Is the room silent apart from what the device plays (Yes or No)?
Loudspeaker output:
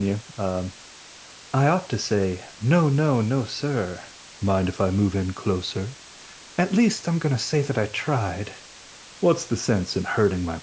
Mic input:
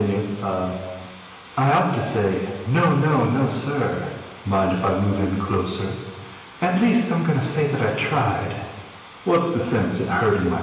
Yes